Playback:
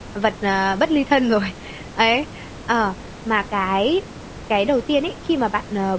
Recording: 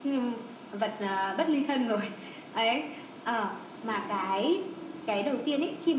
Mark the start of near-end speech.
none

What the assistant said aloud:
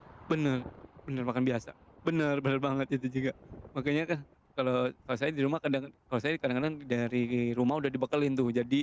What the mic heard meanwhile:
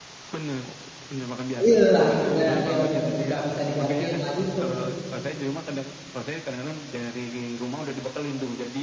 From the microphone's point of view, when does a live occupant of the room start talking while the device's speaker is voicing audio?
1.6 s

